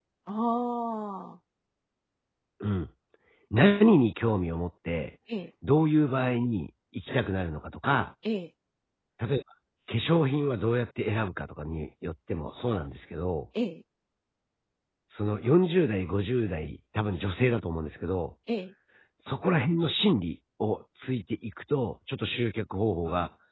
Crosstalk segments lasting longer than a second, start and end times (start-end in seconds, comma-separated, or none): none